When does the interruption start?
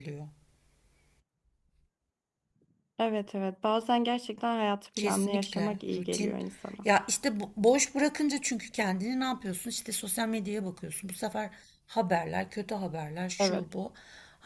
5 s

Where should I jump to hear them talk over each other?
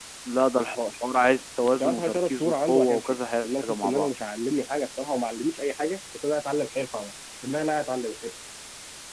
2 s

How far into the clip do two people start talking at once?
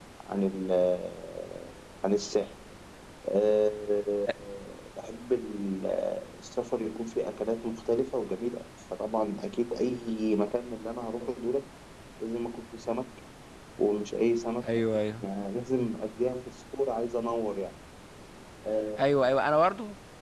none

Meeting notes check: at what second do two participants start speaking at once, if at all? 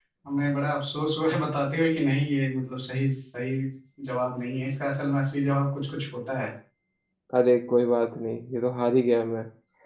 none

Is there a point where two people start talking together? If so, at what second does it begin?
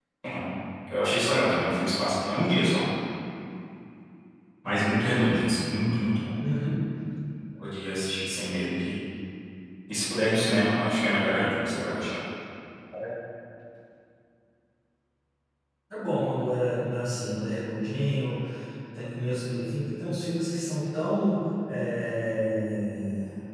none

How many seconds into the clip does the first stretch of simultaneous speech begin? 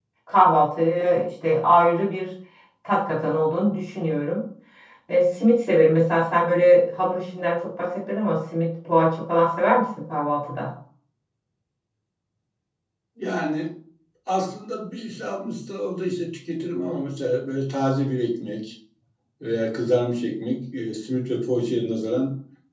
none

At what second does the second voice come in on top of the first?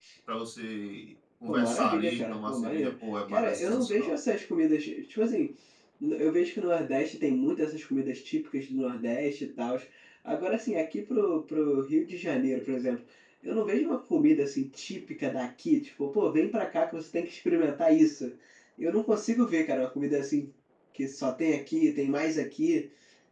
1 s

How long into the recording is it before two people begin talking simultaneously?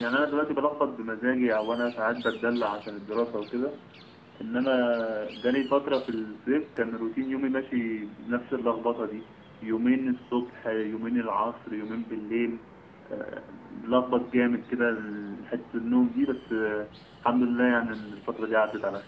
none

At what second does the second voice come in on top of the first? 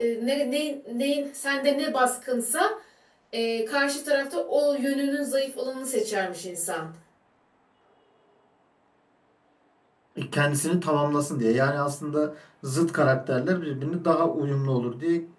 none

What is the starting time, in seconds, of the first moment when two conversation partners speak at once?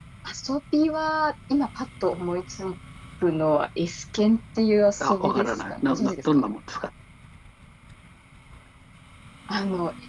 5 s

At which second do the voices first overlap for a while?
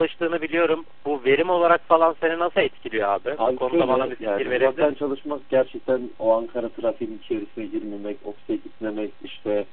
3 s

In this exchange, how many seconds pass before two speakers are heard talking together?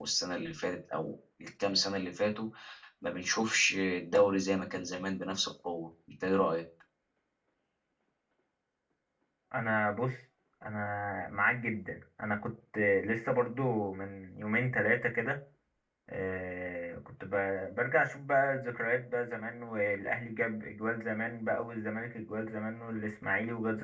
none

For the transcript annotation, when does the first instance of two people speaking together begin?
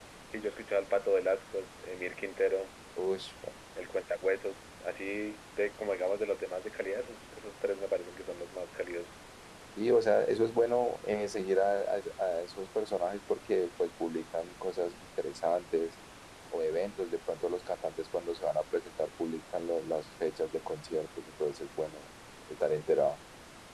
none

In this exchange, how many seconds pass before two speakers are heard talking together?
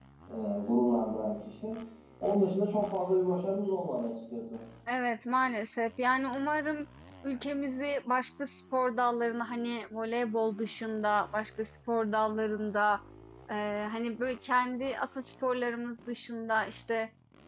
none

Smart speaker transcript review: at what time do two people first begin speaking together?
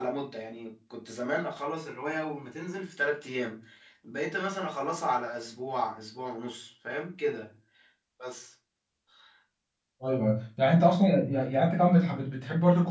none

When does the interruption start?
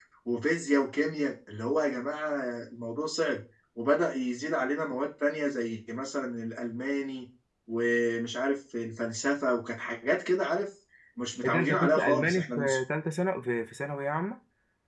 11 s

